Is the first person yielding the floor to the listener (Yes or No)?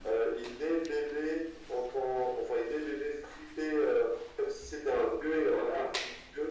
No